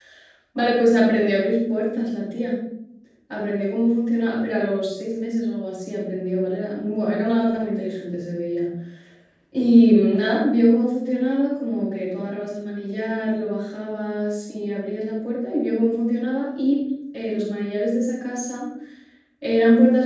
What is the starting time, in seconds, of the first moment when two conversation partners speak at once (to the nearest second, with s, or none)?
none